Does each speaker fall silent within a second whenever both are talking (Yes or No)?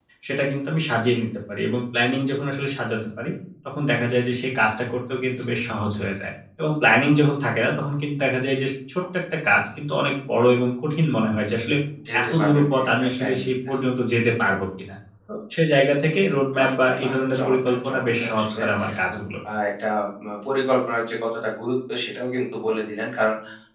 No